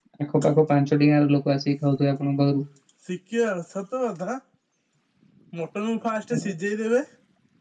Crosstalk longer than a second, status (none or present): none